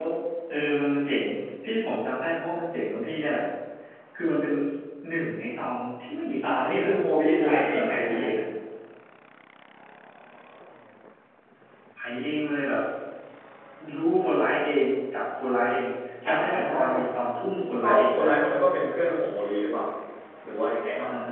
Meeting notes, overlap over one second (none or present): present